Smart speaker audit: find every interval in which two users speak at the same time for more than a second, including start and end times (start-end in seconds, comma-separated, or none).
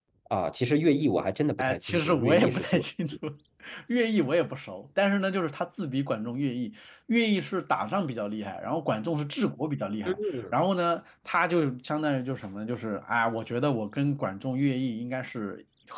1.6-2.8